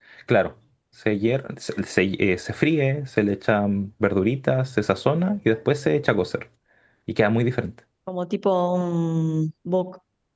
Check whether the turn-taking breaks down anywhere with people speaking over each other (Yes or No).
No